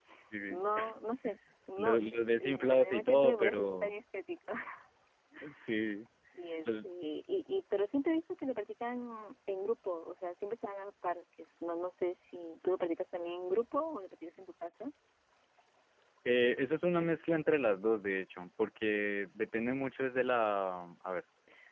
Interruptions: present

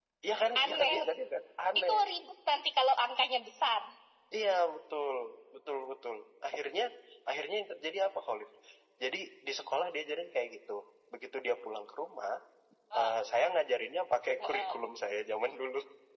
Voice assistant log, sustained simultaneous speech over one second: none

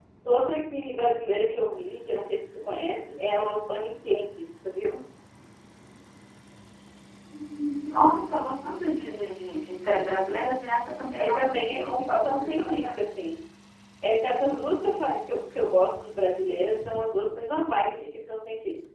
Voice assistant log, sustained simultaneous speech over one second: present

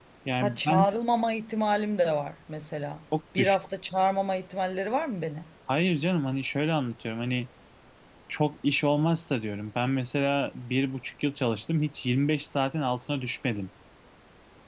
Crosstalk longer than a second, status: none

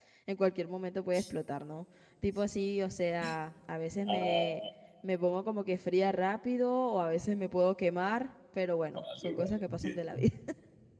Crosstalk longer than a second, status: present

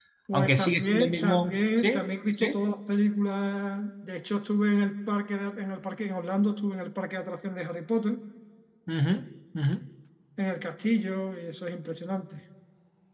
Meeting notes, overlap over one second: present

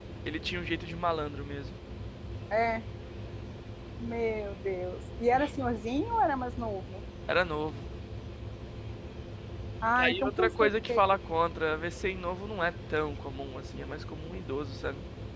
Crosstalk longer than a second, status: present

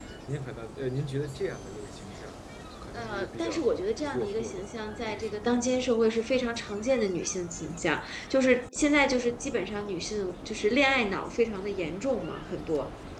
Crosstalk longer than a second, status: present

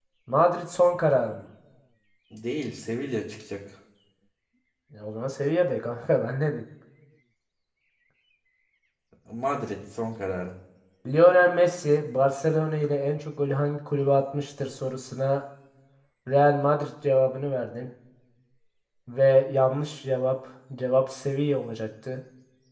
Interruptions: none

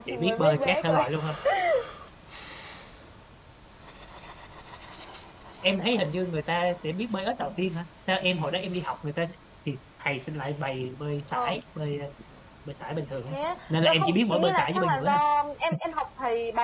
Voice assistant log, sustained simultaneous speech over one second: present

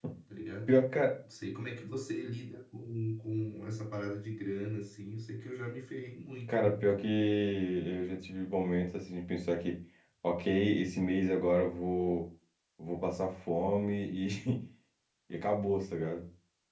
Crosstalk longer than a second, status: none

